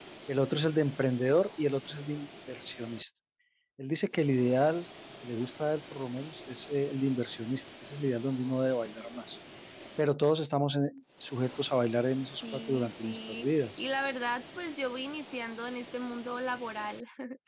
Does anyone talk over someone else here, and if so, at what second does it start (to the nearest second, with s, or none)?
12 s